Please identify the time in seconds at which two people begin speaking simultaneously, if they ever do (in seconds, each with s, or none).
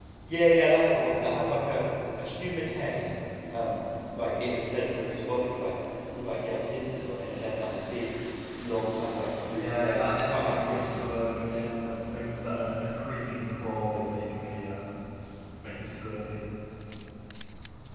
9.5 s